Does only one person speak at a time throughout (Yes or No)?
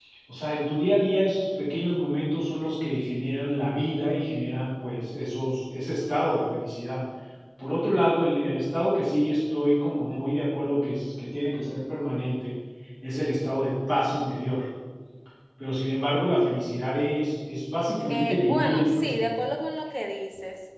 No